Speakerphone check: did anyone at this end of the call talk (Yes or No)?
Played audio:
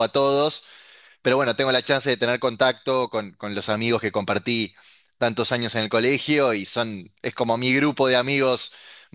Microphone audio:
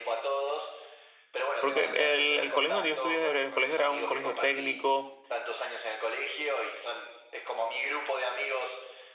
Yes